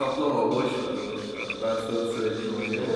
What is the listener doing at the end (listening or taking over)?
listening